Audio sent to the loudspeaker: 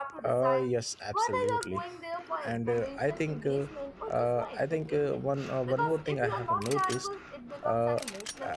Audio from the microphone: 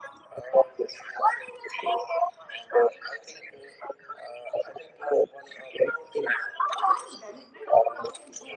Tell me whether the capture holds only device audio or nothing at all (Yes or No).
No